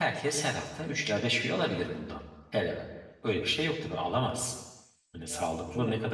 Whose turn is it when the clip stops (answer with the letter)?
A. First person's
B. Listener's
A